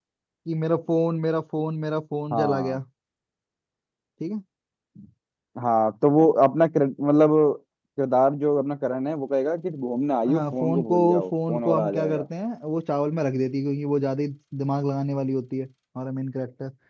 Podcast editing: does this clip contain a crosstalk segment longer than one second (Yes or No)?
Yes